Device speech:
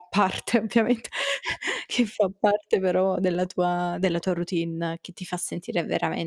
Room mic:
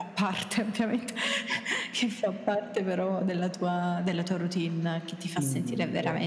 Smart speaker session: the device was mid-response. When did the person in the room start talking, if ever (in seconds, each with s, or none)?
5.3 s